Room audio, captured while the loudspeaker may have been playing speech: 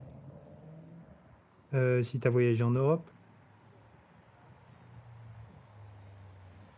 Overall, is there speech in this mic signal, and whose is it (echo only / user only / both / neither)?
user only